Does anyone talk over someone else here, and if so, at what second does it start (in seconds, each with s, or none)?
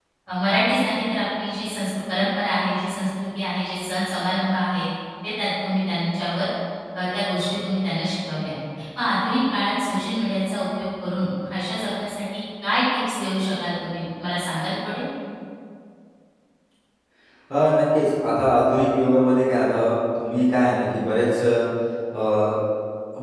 none